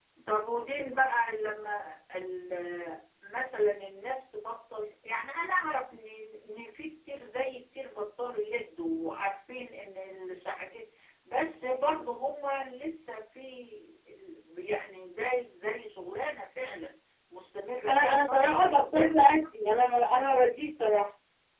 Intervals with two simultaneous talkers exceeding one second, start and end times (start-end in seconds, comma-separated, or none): 17.9-19.4